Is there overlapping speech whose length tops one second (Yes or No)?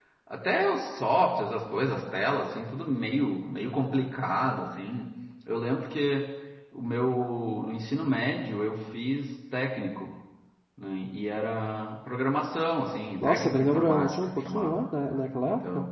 Yes